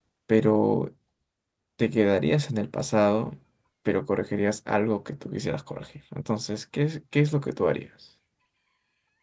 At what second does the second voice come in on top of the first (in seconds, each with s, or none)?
none